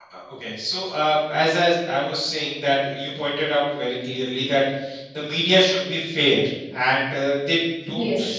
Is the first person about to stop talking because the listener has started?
No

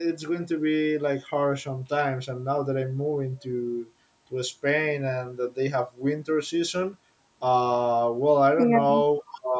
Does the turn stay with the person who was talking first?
Yes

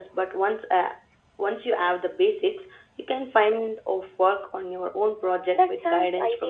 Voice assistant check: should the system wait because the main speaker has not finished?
No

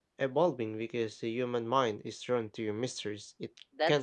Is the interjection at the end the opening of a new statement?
Yes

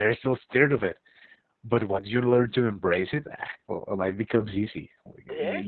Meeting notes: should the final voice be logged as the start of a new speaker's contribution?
Yes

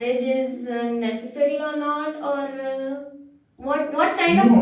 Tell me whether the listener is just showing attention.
No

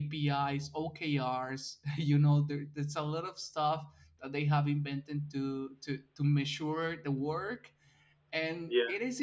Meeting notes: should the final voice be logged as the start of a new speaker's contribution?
No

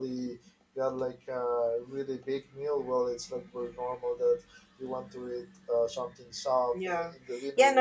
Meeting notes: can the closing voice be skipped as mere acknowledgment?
No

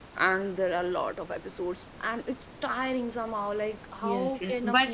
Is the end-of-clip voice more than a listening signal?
Yes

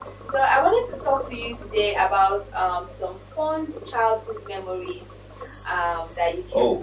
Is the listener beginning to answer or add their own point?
No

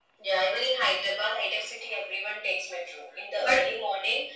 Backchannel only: Yes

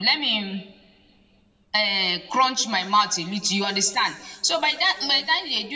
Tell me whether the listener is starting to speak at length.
No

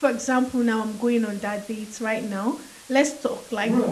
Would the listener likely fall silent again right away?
No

